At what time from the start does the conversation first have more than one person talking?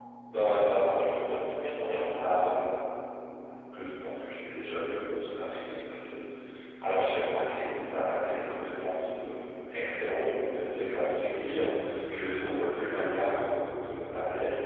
0.7 s

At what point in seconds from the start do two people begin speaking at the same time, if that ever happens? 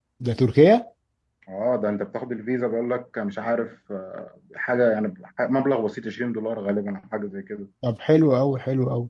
none

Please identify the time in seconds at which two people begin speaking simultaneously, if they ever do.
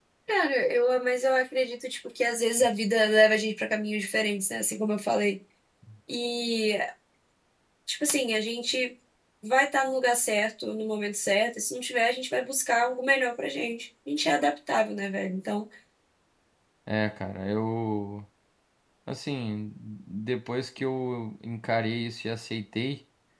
none

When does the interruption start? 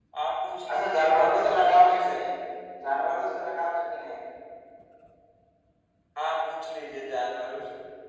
0.7 s

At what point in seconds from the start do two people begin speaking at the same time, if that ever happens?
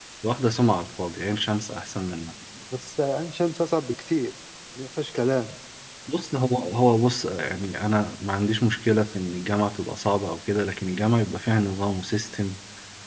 none

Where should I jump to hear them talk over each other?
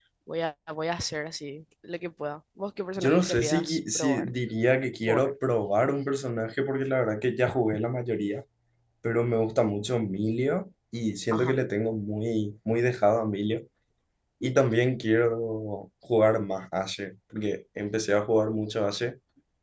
3.0 s

